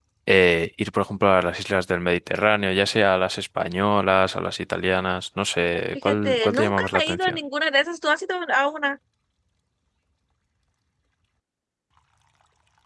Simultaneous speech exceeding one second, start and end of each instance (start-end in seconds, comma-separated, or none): 5.9-7.4